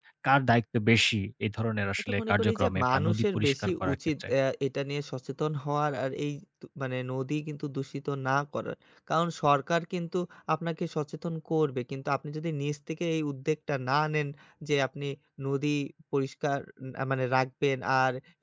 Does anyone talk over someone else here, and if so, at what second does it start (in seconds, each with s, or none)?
2.0 s